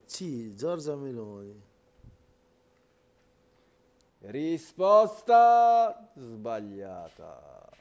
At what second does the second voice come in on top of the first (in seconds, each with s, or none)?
none